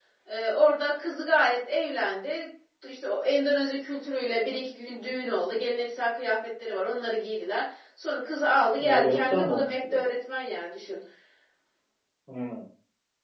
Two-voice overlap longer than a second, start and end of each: 8.8-10.0

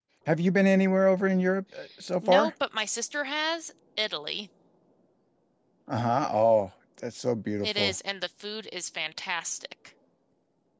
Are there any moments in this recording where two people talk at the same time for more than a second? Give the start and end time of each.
none

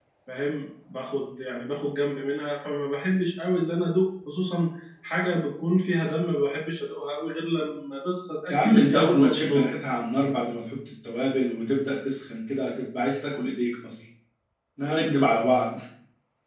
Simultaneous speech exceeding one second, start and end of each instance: 8.5-9.7

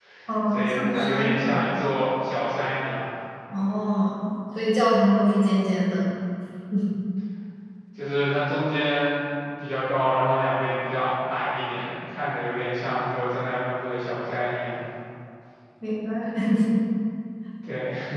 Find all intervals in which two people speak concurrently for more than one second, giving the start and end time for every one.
0.5-1.7

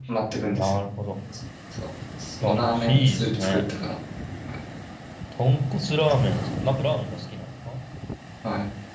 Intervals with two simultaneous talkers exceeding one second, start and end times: 2.4-3.7

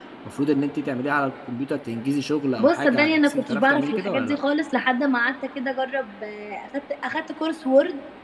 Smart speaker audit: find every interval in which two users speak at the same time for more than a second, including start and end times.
2.6-4.4

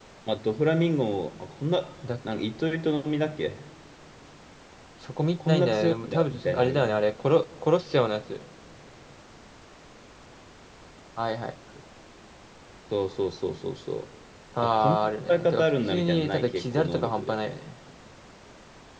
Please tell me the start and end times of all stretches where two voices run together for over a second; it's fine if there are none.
5.5-7.0, 14.6-17.4

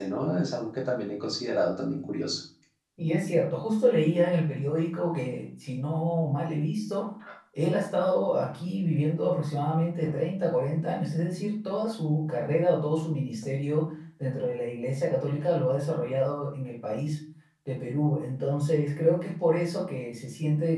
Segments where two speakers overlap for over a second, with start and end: none

